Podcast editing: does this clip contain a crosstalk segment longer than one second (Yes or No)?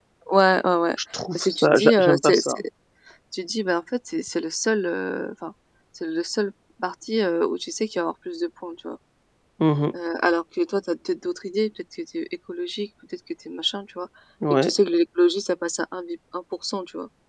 Yes